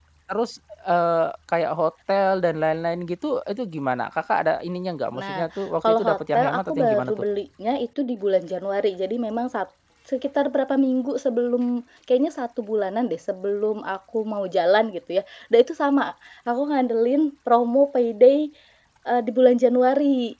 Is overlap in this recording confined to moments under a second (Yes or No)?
No